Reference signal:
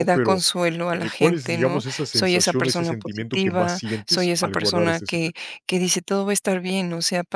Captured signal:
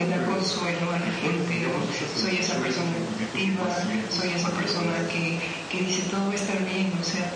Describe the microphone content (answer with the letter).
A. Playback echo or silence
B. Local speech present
A